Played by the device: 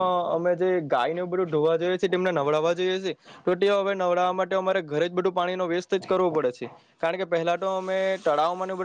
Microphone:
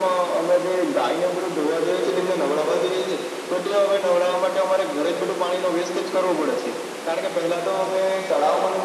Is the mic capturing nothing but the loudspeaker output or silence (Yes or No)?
Yes